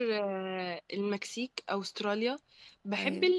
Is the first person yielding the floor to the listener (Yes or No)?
No